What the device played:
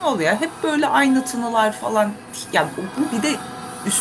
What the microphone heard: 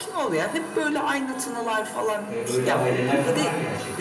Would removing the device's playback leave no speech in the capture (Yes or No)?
No